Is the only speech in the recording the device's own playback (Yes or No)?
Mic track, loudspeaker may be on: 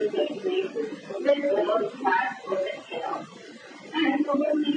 Yes